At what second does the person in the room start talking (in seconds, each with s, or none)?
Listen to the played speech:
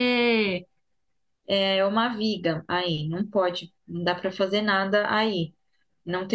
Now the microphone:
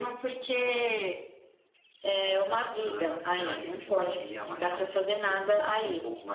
2.8 s